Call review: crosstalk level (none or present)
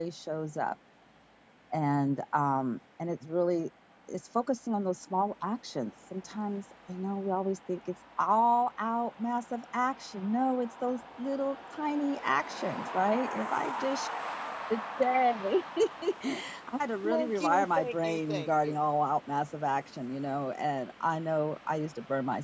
present